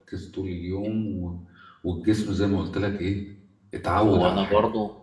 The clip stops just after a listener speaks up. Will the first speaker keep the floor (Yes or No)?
No